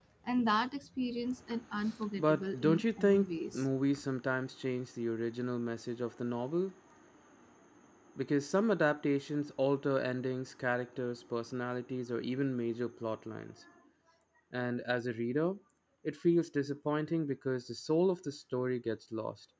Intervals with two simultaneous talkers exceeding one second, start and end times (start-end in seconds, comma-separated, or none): 2.2-3.6